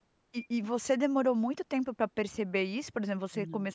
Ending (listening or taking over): listening